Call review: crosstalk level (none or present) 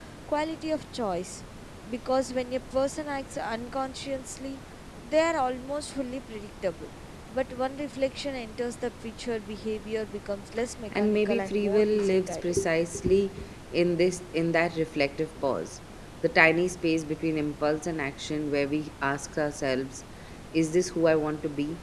present